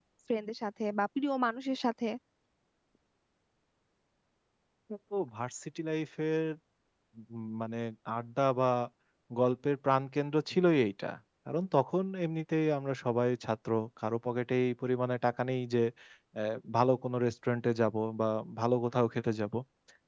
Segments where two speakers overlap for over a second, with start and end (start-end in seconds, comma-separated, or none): none